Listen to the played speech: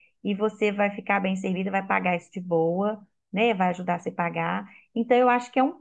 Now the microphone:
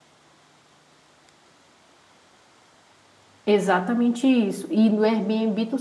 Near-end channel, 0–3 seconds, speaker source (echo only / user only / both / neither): neither